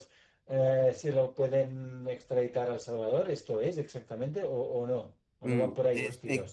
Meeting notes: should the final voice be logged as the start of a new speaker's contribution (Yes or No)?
Yes